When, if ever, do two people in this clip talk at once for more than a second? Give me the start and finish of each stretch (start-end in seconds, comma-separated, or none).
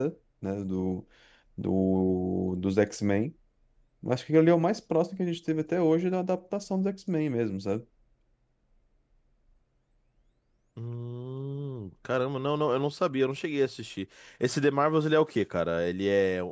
none